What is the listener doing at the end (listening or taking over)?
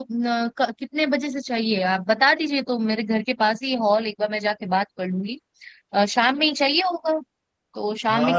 taking over